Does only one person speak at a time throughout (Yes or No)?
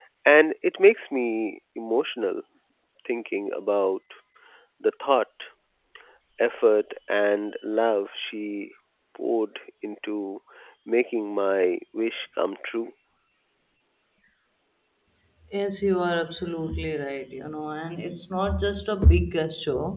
Yes